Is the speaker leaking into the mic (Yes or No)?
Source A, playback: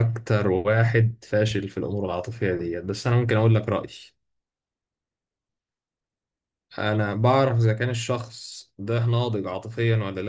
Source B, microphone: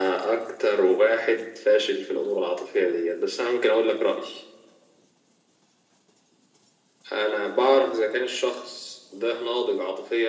Yes